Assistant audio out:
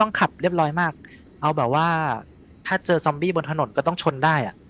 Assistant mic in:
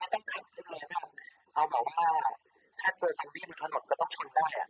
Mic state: echo only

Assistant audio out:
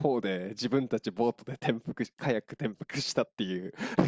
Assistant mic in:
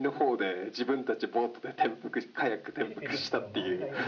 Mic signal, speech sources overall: both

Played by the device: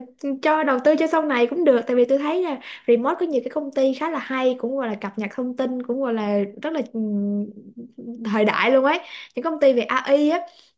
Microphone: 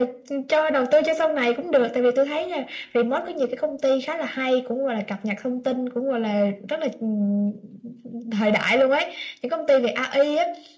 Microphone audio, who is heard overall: echo only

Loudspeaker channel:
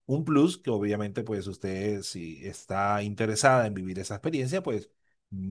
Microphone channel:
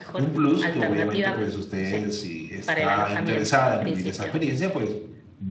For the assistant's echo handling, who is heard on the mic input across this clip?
both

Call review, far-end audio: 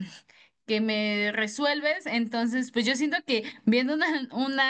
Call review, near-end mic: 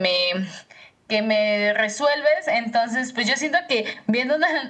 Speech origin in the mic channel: echo only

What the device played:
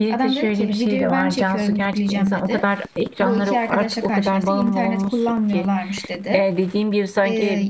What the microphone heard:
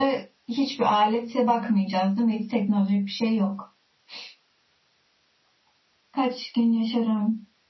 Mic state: user only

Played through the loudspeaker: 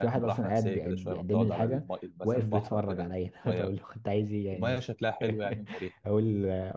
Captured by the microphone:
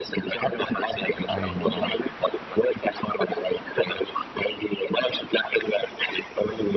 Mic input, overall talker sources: both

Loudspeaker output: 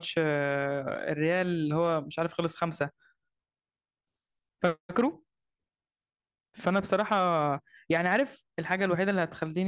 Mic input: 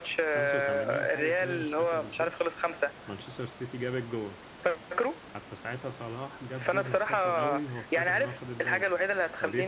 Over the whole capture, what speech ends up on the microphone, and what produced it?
both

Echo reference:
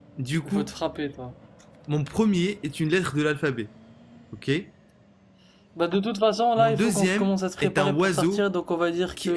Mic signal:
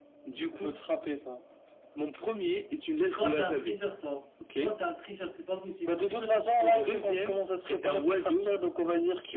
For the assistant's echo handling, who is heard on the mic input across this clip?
both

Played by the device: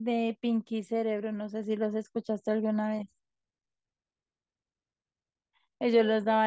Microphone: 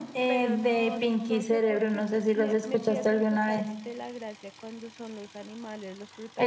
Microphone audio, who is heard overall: both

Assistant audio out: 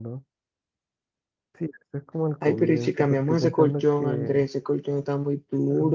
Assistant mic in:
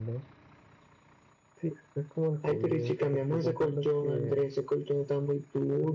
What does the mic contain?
echo only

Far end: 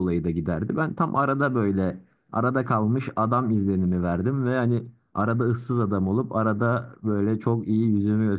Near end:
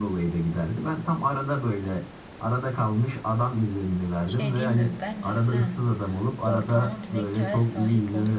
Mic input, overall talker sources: both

